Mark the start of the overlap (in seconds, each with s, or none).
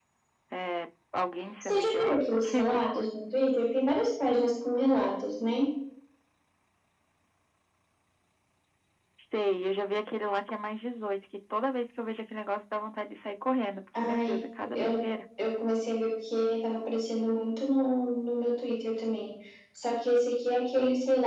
1.6 s